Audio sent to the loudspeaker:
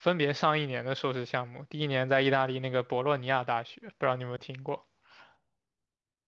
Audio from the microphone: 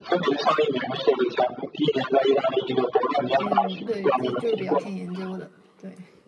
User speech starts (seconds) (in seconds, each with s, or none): 3.1 s